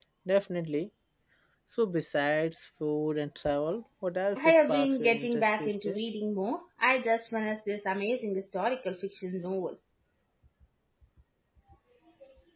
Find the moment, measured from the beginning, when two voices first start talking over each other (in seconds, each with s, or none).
4.4 s